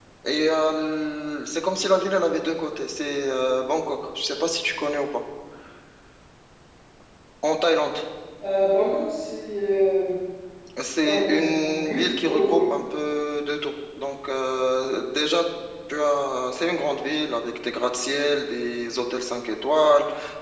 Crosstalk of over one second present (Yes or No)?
Yes